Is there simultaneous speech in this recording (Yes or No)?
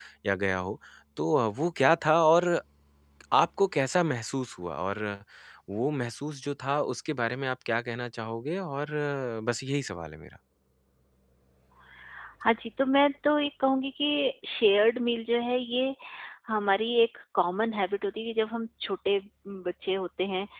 No